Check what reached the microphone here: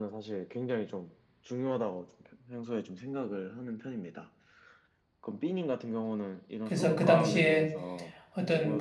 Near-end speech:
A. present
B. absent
A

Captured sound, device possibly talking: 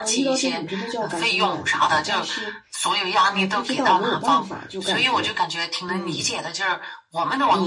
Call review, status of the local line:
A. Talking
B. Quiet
A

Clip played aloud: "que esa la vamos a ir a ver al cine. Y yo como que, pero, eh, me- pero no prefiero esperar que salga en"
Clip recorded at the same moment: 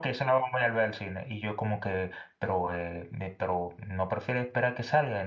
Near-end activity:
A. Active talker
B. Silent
B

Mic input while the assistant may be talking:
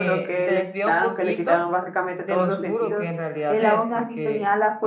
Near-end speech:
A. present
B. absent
A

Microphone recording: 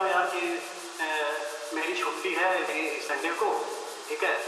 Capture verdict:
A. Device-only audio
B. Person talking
A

